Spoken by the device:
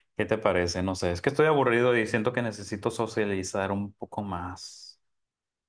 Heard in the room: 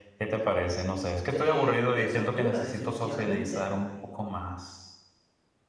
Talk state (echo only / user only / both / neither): both